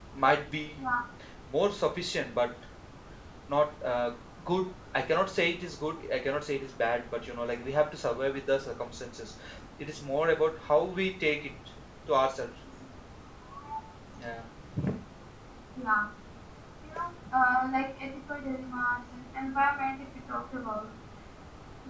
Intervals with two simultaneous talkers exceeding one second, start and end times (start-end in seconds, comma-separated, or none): none